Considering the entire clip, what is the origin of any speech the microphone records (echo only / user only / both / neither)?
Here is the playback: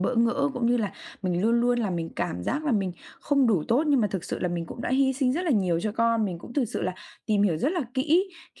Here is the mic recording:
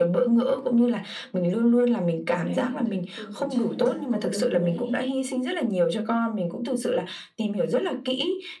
both